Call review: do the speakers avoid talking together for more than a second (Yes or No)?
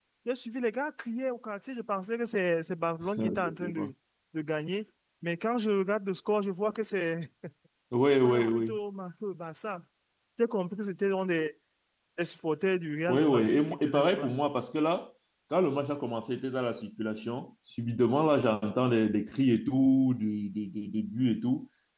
No